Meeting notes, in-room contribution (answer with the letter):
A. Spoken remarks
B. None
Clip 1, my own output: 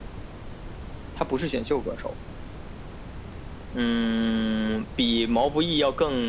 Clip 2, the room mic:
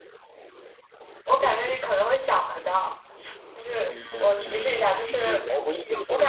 A